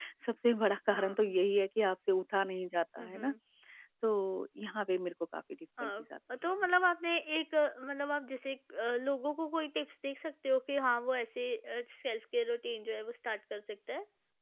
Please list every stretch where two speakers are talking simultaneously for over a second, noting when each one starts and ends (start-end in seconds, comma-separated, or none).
none